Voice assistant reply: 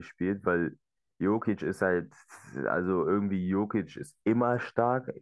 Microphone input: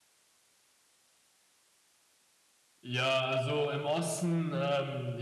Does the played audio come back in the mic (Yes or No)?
No